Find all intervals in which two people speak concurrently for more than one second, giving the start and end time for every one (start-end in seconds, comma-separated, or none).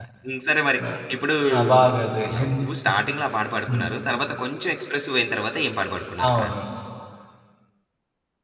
none